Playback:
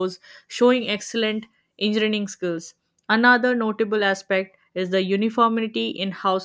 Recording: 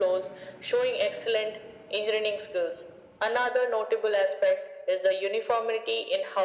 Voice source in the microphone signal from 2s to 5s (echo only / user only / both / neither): echo only